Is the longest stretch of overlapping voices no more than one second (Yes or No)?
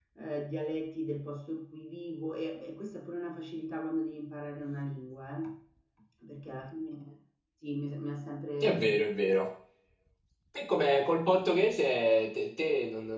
Yes